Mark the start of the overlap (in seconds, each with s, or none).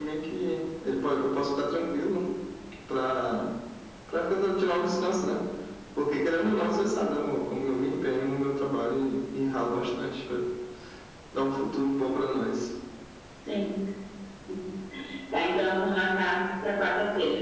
none